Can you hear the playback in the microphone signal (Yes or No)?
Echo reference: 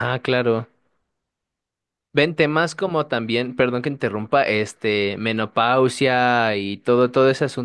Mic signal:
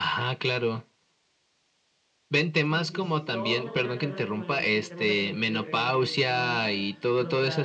Yes